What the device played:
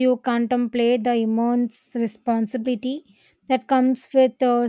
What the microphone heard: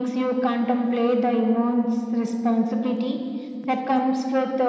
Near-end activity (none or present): none